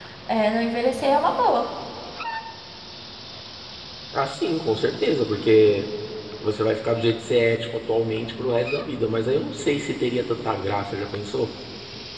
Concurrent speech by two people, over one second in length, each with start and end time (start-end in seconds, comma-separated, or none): none